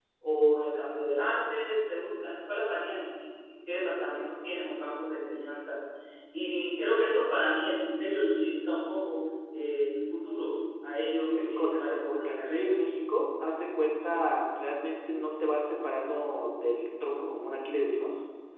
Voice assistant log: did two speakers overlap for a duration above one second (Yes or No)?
Yes